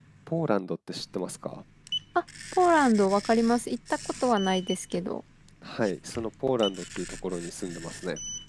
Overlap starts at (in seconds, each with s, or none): none